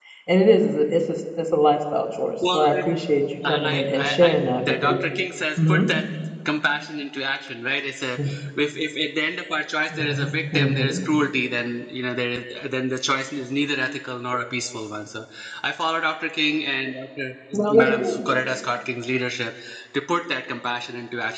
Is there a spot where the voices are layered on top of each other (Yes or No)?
Yes